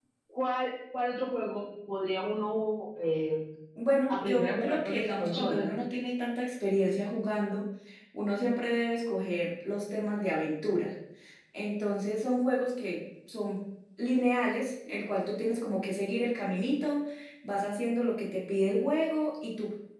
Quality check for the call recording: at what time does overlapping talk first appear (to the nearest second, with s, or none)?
4 s